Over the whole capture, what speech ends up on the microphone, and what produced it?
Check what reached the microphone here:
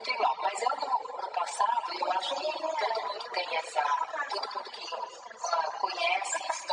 echo only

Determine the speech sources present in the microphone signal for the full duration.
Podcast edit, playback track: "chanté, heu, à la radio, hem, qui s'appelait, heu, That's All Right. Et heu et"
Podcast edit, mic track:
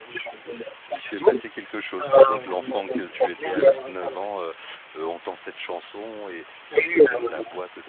both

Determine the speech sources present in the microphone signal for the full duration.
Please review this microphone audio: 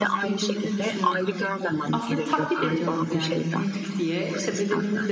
both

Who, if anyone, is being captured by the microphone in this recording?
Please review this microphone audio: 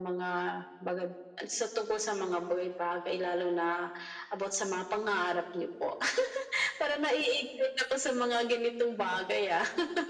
echo only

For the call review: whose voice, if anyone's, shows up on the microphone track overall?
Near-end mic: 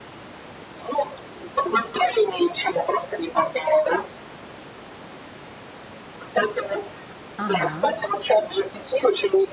both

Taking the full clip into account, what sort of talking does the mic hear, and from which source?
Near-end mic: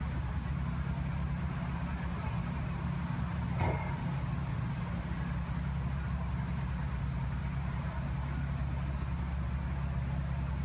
neither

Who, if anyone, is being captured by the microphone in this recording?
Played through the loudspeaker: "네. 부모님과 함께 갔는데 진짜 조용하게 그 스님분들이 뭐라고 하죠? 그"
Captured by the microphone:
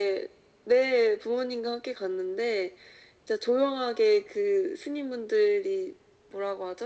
echo only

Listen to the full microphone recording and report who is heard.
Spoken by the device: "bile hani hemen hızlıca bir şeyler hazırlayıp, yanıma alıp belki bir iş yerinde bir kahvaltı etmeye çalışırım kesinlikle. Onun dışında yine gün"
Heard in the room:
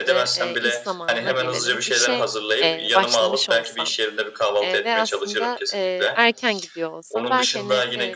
both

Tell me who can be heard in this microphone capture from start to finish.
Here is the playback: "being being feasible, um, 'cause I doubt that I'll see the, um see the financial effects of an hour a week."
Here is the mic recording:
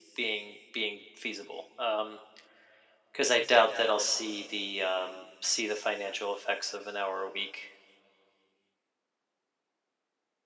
echo only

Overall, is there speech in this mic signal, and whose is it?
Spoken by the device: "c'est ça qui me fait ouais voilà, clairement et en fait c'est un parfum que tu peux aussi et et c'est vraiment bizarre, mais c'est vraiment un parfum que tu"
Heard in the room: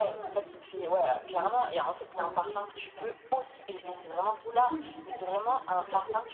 both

